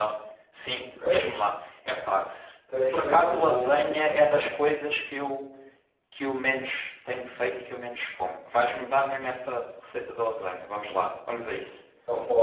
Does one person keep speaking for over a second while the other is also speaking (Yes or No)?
Yes